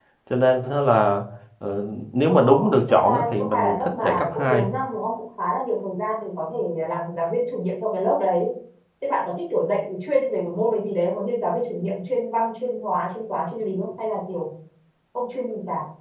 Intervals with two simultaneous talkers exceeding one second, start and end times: 2.3-4.7

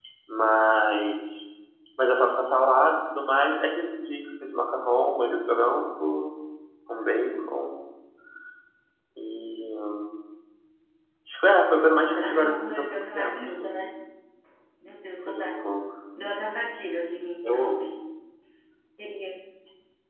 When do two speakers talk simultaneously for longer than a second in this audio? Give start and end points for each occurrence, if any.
12.0-13.8

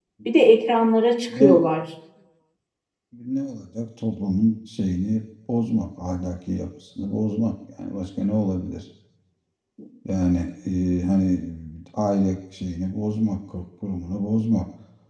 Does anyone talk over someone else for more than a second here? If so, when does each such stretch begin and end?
none

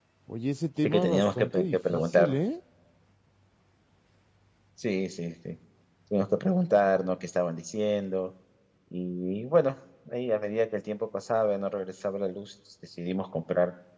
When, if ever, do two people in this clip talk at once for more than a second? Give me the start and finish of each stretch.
0.8-2.3

